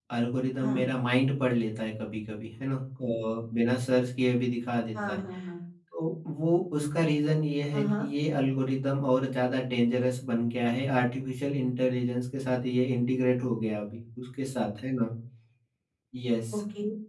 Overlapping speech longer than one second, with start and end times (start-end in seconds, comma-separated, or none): none